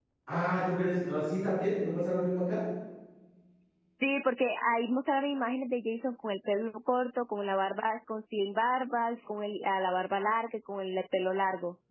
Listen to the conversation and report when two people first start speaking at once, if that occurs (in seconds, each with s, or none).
none